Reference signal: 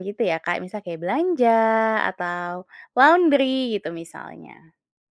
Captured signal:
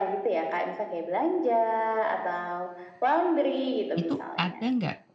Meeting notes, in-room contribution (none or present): present